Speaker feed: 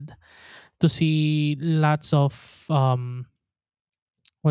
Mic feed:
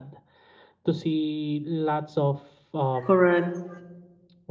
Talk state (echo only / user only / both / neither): both